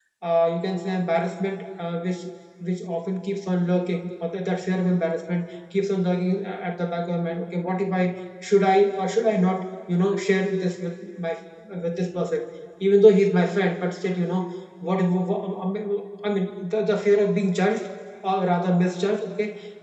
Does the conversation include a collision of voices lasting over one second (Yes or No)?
No